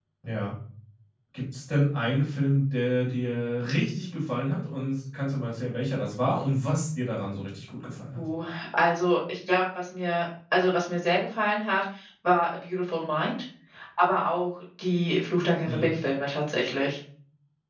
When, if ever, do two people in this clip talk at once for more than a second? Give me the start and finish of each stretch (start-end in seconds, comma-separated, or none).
none